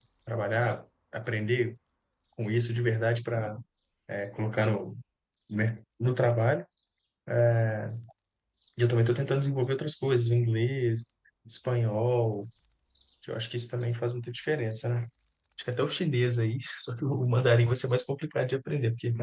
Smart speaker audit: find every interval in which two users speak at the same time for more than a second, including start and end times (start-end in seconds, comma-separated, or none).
none